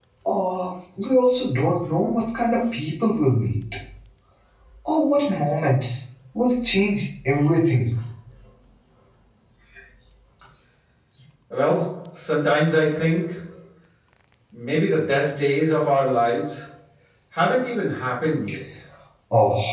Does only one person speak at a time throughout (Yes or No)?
Yes